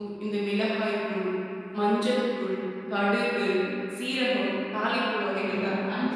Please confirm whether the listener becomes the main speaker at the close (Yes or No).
Yes